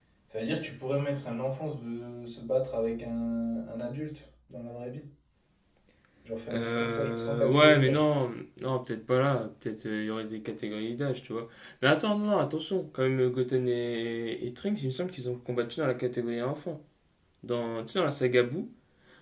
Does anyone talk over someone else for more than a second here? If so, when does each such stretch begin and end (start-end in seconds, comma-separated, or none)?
6.5-8.0